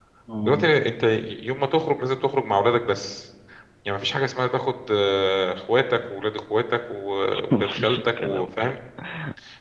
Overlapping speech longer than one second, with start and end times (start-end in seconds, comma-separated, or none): 7.5-8.7